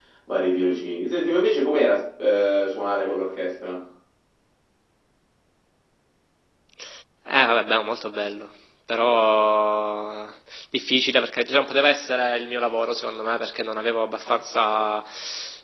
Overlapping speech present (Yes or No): No